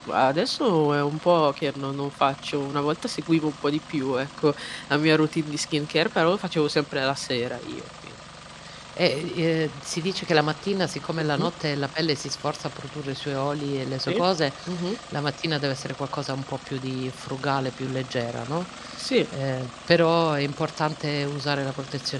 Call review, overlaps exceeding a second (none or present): none